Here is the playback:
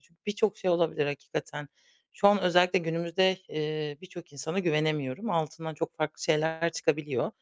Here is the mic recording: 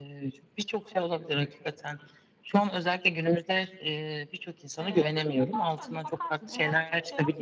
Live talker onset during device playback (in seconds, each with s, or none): 4.8 s